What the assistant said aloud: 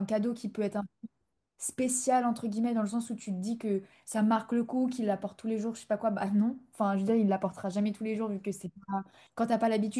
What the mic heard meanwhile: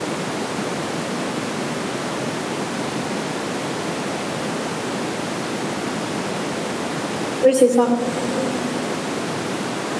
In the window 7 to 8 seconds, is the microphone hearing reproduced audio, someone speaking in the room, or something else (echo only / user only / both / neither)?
user only